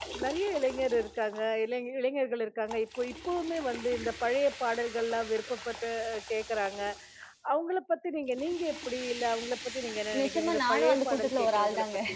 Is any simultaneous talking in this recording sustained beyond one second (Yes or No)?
Yes